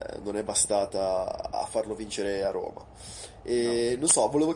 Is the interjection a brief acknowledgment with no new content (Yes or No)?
Yes